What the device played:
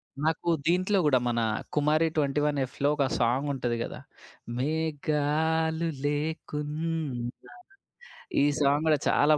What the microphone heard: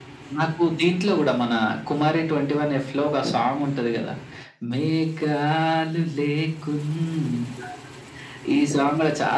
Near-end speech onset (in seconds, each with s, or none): none